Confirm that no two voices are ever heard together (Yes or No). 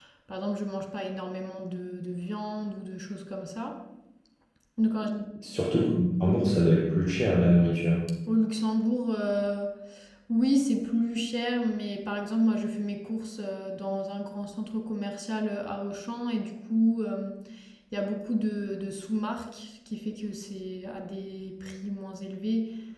Yes